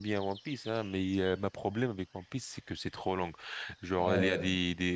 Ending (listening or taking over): listening